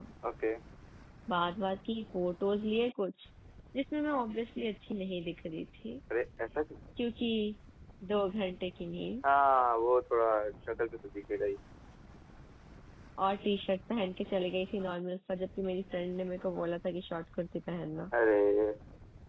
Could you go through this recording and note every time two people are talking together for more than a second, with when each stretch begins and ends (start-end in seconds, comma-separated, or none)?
none